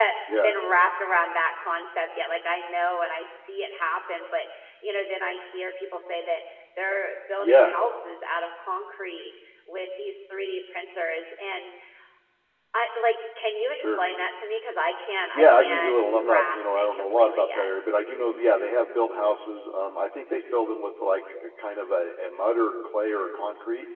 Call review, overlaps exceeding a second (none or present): present